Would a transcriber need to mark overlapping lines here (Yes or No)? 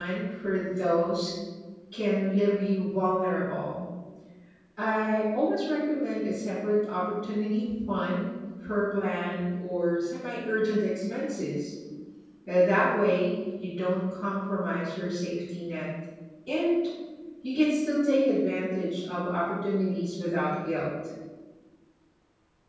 No